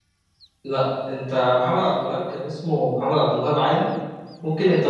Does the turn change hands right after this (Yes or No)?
No